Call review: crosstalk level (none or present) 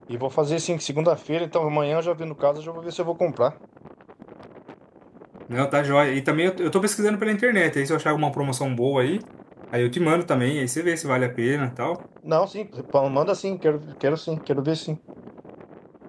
none